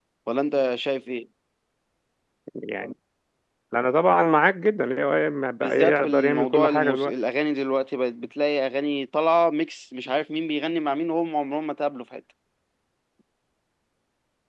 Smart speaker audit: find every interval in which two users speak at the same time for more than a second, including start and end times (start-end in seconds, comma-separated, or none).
5.6-7.1